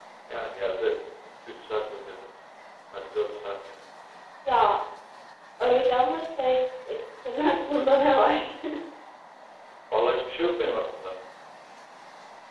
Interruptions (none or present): none